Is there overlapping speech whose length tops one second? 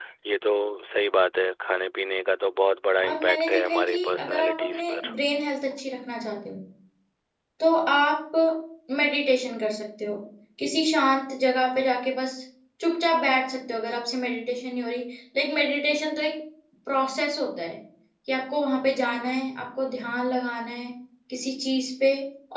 Yes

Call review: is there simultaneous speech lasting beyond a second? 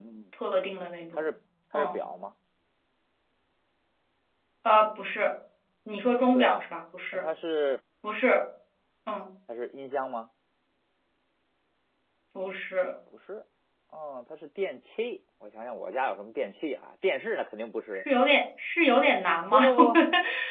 No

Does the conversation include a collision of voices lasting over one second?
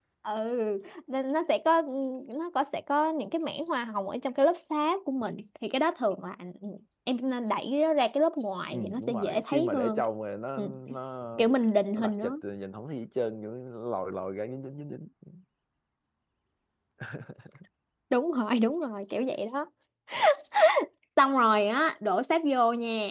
Yes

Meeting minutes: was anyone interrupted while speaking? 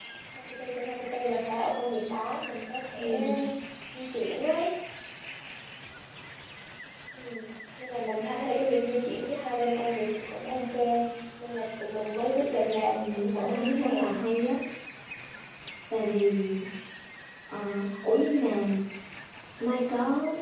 Yes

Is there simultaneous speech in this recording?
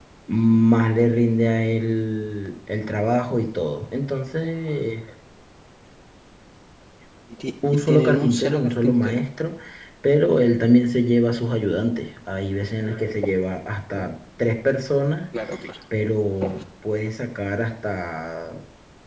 Yes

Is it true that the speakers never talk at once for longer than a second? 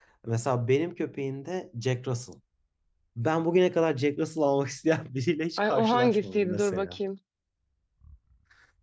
No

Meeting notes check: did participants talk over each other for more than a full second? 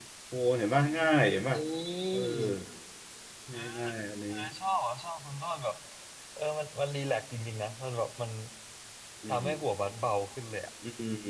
No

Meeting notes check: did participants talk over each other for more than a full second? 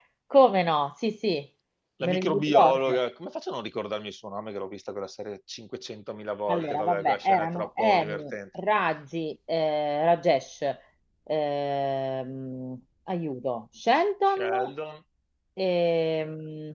Yes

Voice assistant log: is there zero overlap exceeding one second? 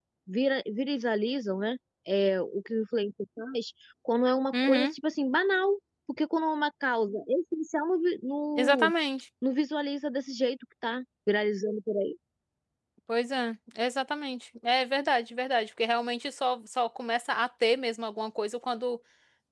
Yes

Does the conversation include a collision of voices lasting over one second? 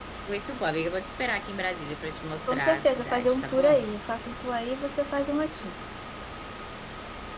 Yes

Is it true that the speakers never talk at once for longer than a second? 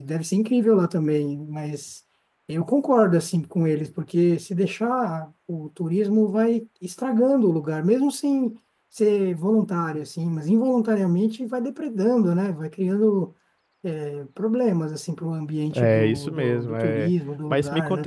No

